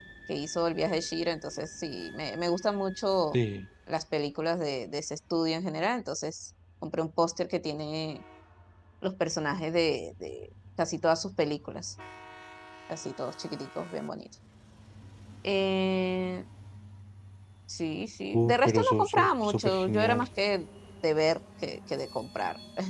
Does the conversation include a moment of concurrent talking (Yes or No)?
Yes